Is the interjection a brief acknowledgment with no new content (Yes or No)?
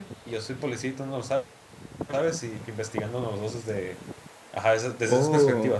Yes